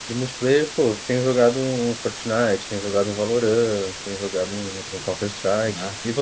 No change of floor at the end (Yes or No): No